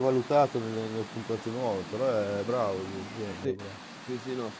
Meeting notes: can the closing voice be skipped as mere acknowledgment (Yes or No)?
No